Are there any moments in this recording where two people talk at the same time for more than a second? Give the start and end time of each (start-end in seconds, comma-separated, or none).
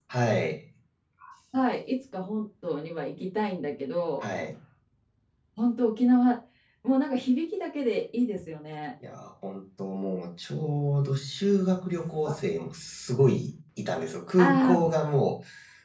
none